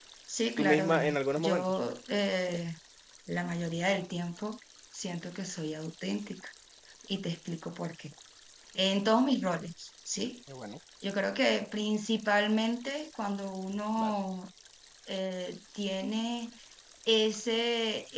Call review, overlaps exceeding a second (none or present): present